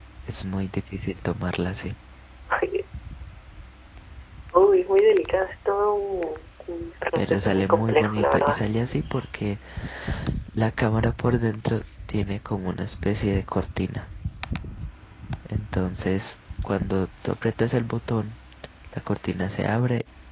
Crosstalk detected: Yes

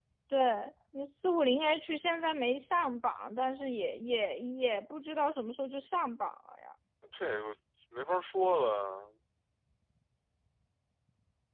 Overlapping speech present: No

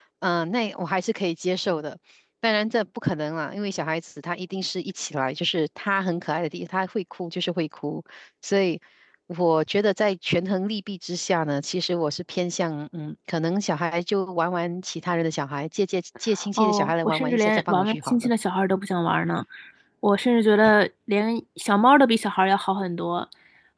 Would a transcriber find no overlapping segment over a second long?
No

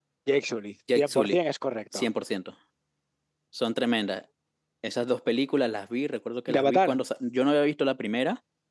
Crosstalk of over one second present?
No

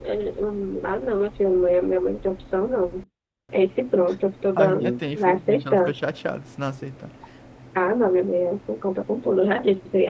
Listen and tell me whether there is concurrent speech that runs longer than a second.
Yes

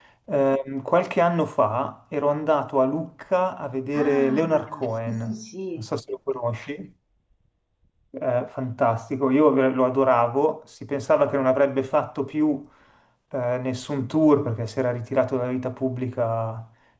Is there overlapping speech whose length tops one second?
Yes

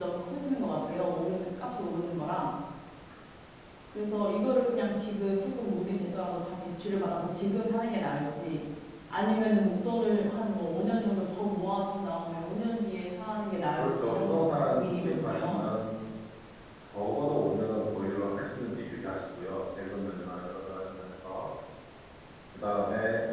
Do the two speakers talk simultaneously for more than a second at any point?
Yes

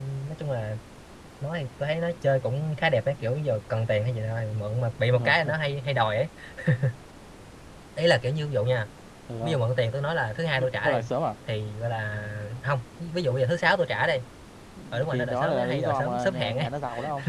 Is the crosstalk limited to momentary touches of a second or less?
No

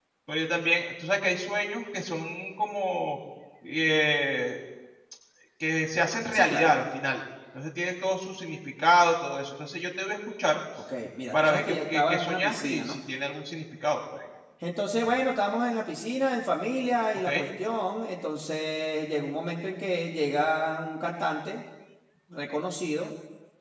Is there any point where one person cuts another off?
Yes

